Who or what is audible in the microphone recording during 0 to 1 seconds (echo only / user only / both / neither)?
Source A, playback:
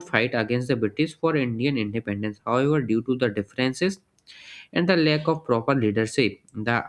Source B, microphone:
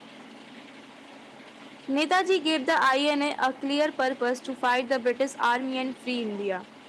neither